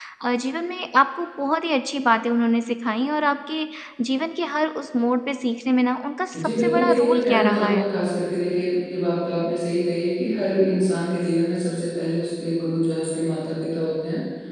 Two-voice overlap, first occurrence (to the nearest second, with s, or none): 6 s